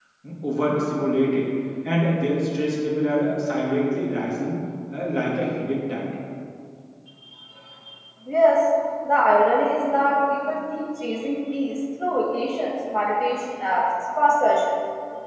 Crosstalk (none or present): none